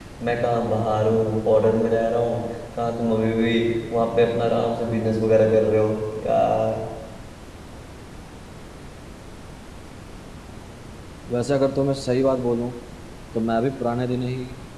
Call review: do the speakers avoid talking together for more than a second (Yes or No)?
Yes